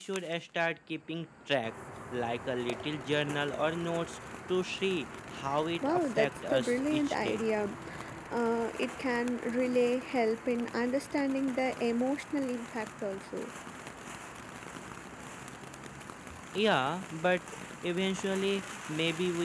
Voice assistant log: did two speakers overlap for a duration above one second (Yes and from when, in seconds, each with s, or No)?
Yes, from 5.8 s